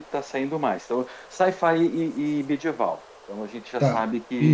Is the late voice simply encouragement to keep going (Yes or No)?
No